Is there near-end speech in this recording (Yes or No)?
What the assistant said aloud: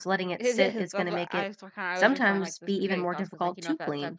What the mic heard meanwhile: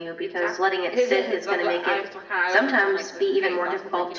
No